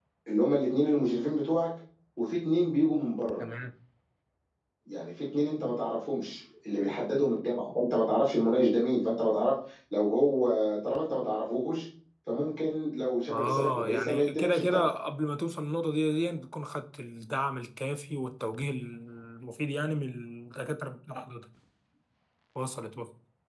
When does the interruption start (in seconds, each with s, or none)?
13.3 s